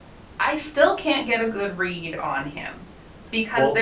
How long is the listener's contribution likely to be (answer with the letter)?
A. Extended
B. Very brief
B